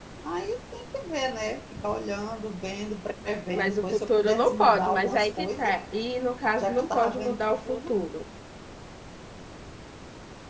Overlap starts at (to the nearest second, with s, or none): 4 s